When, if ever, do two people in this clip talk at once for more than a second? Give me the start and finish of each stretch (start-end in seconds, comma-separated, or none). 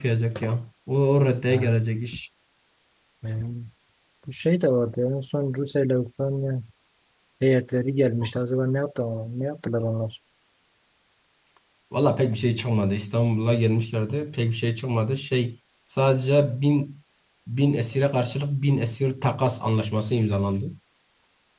none